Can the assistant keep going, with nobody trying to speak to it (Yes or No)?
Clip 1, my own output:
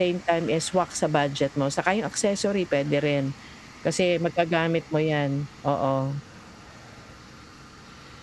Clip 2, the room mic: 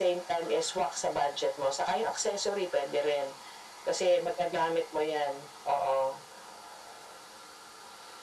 Yes